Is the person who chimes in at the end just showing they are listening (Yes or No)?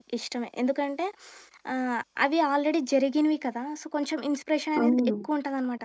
Yes